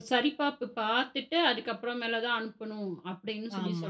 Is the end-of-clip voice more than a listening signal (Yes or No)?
Yes